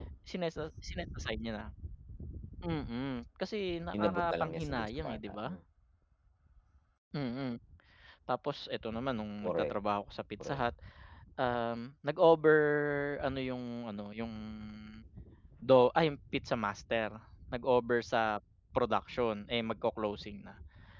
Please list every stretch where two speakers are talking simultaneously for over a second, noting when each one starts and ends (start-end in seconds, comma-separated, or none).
4.0-5.5